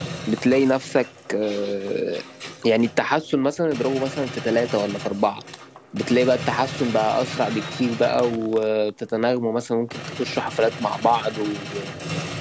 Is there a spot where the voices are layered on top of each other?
No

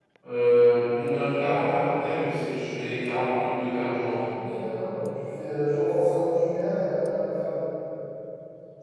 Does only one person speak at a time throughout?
Yes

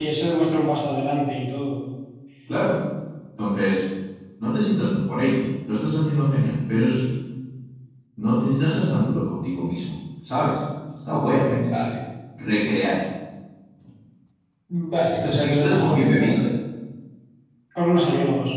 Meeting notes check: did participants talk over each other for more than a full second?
Yes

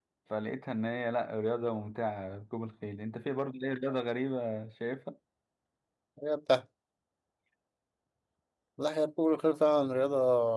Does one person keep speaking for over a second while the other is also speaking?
No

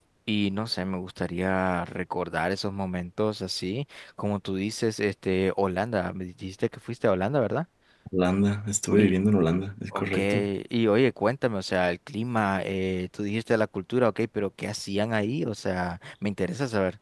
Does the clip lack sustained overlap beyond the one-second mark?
Yes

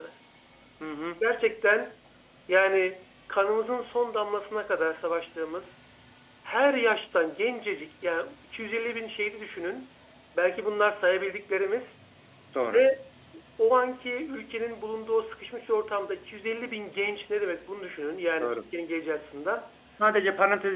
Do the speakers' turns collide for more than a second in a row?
No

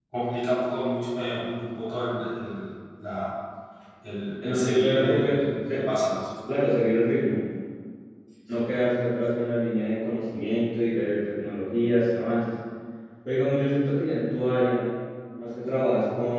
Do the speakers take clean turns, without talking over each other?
No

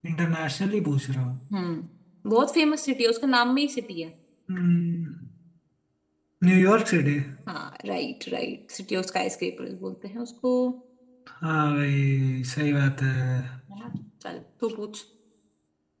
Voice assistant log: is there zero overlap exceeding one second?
Yes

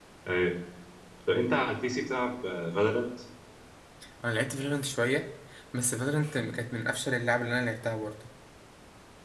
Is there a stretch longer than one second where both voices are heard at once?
No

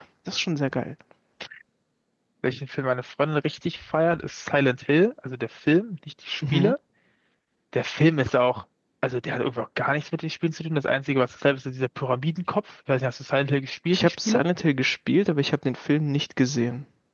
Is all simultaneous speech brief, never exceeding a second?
Yes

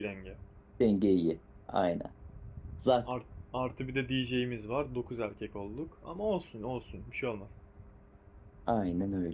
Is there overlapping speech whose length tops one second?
No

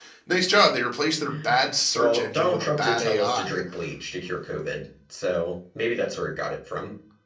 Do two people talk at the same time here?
Yes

